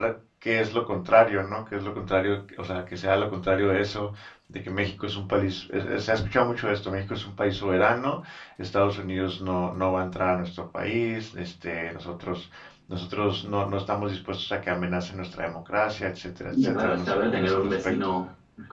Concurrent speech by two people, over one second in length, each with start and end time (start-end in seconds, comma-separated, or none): 16.6-17.9